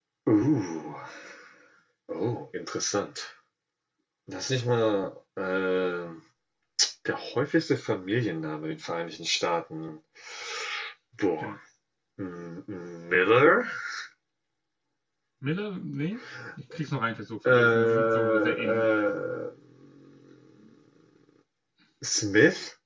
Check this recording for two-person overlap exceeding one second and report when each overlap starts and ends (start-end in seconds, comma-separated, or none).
17.5-18.8